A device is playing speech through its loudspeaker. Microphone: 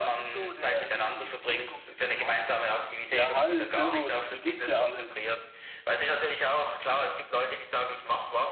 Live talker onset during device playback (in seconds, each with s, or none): 3.1 s